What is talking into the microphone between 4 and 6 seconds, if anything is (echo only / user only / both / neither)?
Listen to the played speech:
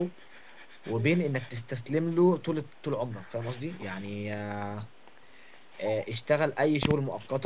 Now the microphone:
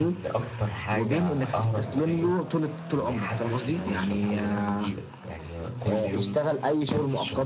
both